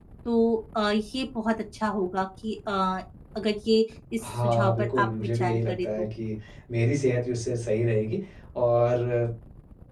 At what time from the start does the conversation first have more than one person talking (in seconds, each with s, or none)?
4.2 s